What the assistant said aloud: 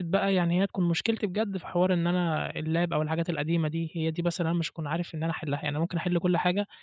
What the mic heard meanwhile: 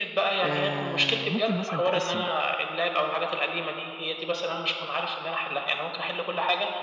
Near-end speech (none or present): present